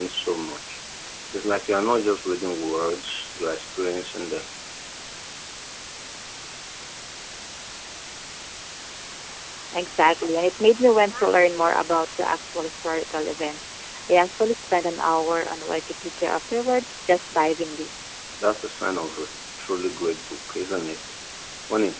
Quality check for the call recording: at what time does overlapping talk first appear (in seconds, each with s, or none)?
none